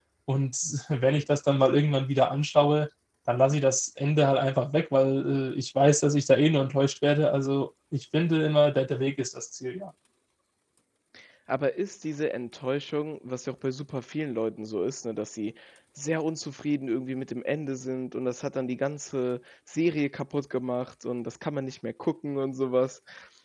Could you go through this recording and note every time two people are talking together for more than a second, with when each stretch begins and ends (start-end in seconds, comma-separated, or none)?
none